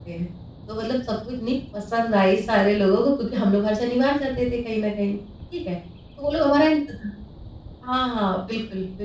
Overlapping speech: No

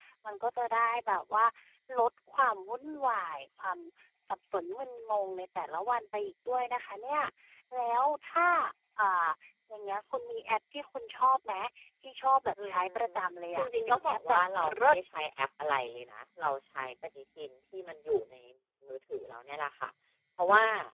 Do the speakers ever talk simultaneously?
Yes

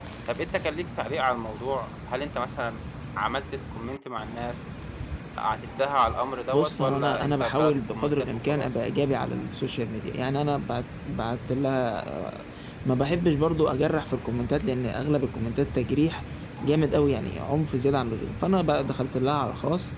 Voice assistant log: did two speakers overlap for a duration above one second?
Yes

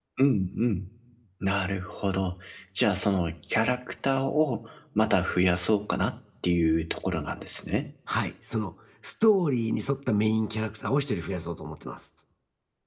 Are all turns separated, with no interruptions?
Yes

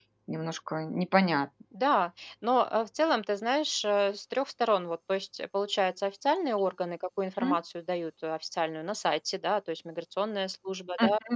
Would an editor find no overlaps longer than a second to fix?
Yes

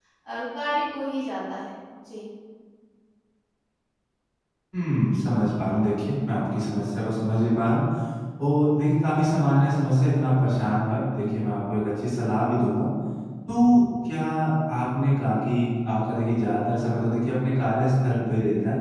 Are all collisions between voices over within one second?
Yes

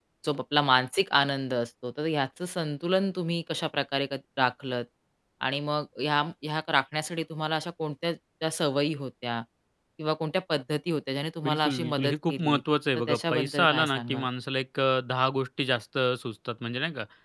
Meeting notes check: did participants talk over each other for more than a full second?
Yes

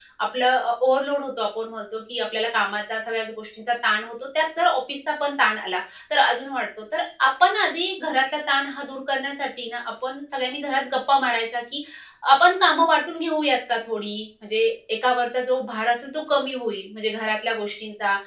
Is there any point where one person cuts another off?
No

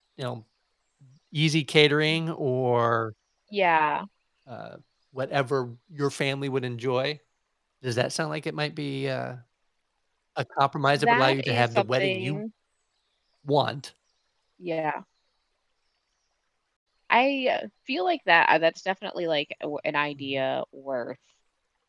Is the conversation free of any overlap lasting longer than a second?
No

